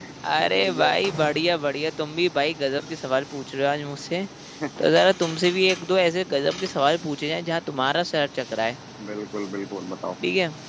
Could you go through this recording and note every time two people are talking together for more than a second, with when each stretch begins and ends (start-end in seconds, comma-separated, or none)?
none